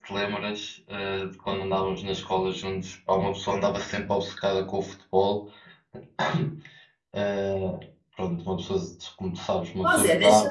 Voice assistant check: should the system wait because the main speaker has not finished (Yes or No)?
No